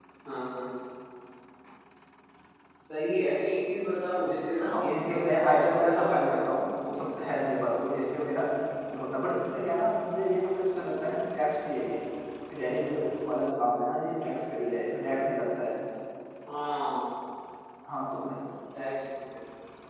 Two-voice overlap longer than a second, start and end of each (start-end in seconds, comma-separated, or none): 4.6-6.4